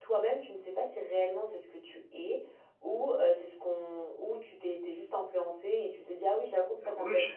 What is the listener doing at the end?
taking over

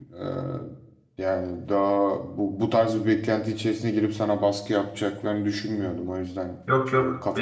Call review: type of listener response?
taking over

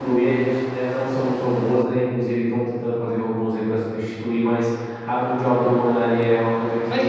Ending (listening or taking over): taking over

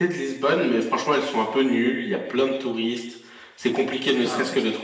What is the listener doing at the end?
listening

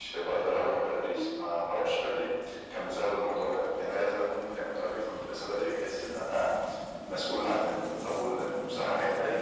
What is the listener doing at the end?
listening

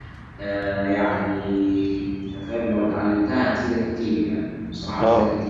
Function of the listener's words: taking over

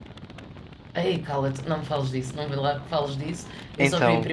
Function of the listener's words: listening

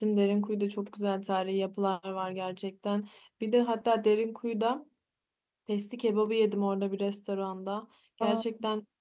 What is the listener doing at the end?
listening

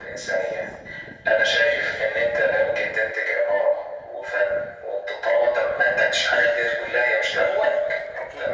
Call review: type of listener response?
listening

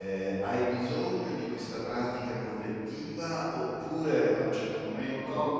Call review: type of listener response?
listening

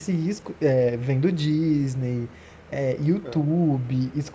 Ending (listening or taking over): listening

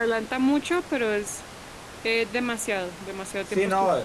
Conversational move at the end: taking over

